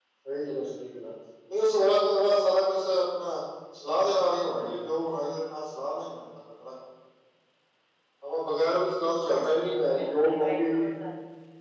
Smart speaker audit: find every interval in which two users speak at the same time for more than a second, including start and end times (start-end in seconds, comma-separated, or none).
9.3-10.9